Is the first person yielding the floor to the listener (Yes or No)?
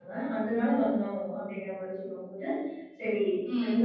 No